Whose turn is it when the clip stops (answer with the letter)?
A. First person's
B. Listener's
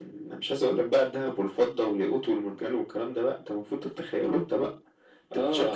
B